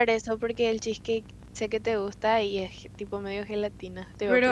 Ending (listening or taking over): taking over